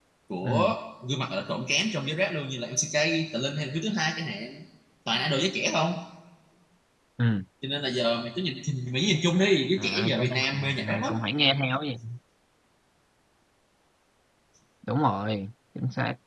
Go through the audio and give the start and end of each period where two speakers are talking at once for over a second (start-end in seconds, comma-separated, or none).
9.8-11.1